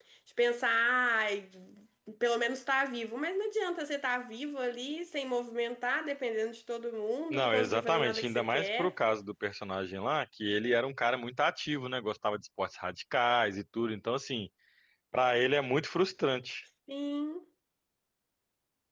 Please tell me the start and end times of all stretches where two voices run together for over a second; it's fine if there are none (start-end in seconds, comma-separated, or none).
7.3-8.9